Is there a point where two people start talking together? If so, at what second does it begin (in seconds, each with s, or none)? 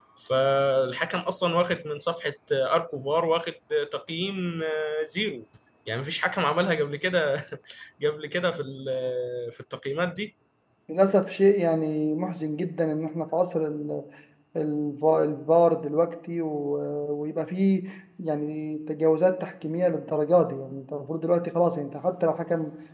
none